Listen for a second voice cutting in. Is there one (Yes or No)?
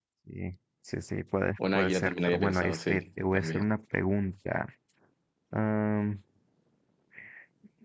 Yes